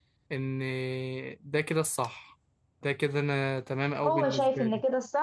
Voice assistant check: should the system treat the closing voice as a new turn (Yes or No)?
Yes